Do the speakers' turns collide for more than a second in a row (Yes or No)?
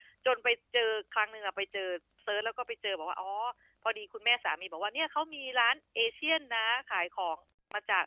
No